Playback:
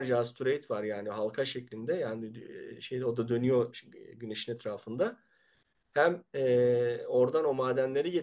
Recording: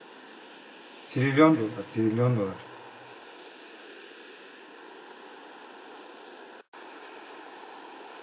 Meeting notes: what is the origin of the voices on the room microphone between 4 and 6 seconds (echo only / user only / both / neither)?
neither